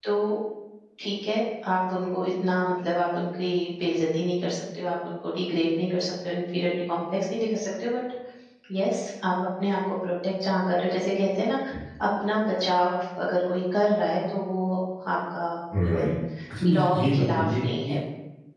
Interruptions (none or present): present